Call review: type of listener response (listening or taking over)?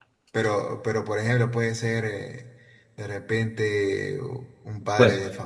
listening